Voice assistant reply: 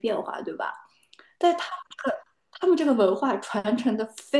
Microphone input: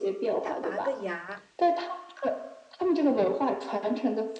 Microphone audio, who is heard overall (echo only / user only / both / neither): both